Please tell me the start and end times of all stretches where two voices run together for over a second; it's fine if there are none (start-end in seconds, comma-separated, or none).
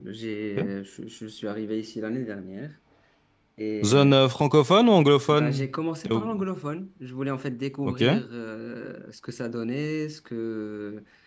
none